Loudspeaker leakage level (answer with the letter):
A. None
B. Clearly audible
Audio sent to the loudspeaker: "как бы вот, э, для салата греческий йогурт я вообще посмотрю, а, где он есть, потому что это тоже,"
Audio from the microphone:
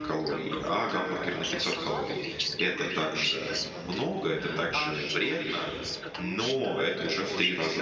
B